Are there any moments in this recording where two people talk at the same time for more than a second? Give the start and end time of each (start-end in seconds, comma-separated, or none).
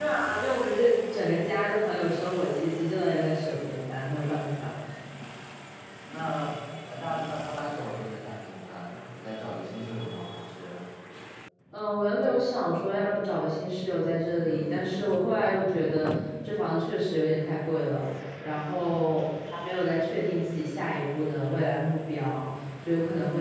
none